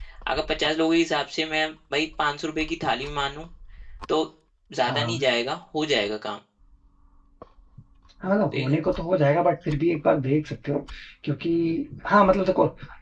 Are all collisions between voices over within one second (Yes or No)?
Yes